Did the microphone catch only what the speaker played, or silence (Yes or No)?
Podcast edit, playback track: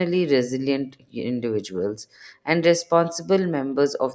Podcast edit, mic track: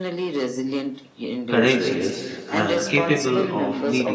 No